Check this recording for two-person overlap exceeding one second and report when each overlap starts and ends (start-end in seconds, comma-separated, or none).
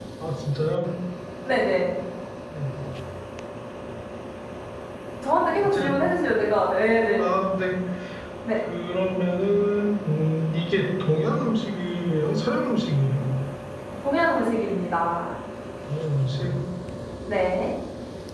none